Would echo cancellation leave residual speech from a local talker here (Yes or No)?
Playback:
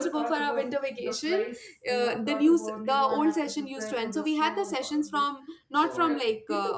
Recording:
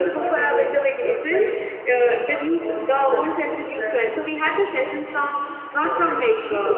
No